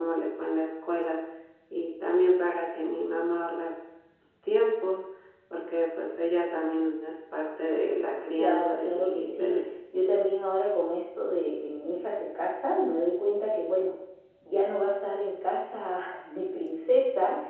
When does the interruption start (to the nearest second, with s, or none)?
8 s